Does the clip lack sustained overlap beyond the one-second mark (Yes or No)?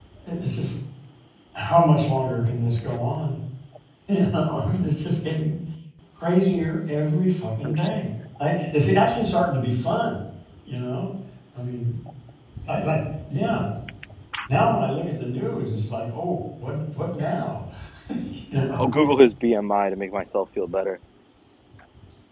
Yes